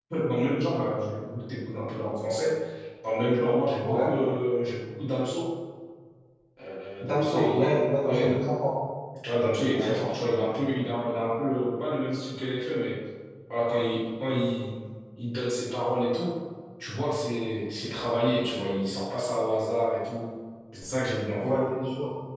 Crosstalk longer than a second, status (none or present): present